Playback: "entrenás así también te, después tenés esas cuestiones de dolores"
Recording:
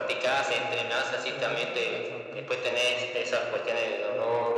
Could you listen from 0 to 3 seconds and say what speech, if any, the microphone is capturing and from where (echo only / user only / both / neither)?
both